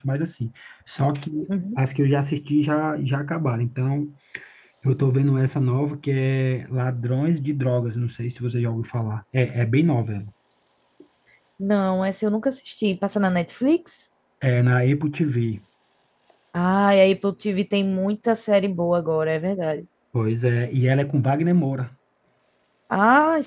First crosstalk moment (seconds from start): none

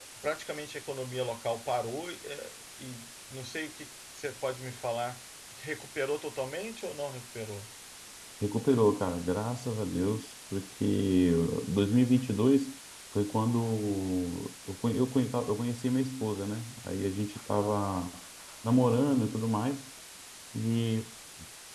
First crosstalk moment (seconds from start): none

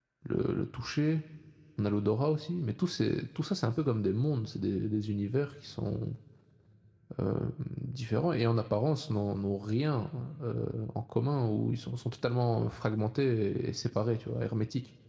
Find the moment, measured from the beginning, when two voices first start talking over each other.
none

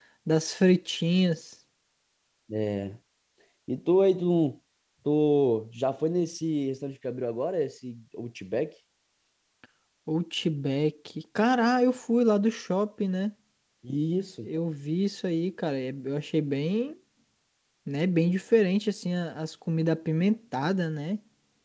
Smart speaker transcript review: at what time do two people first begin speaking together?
none

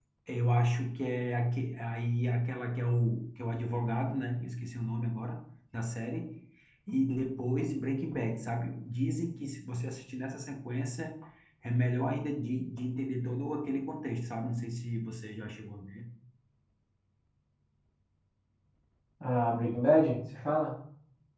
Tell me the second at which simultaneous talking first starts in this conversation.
none

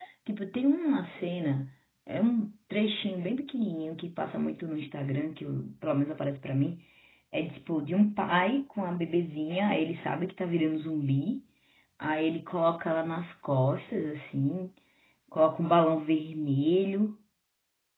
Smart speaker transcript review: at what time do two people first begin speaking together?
none

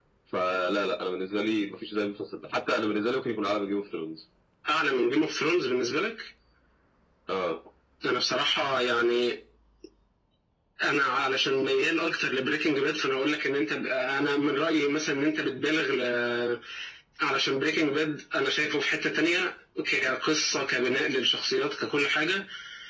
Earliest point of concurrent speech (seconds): none

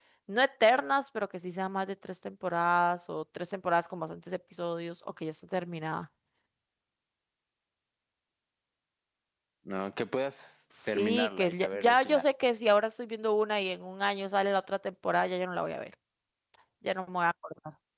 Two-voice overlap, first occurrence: 10.7 s

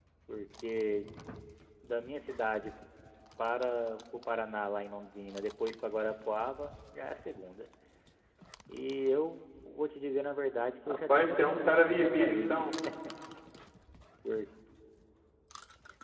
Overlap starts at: 10.9 s

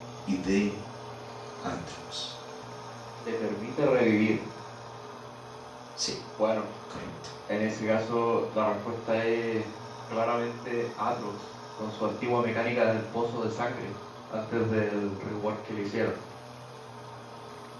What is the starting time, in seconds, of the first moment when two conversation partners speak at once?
none

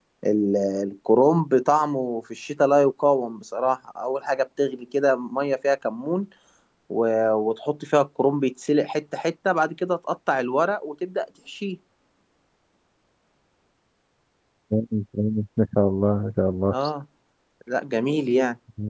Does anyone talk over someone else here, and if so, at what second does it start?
none

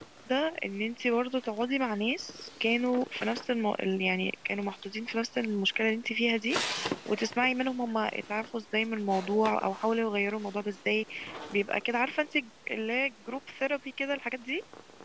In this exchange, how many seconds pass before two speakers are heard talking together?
none

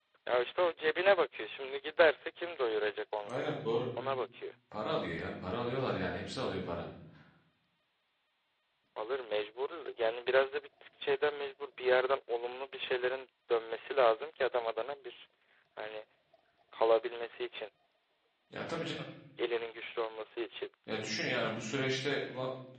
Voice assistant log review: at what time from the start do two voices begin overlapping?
none

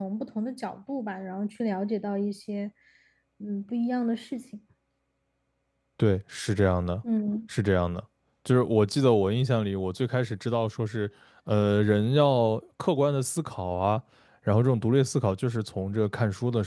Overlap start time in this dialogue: none

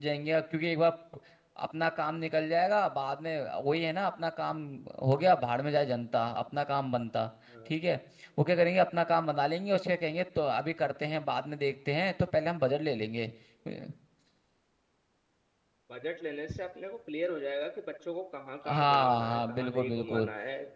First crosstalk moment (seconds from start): 18.6 s

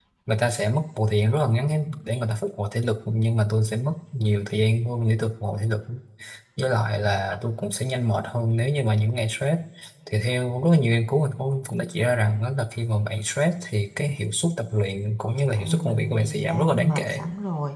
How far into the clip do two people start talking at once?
15.5 s

